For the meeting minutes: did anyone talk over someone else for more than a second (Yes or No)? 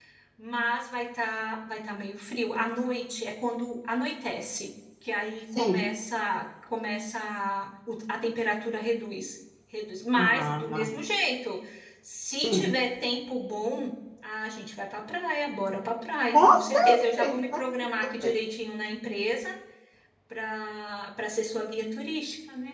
Yes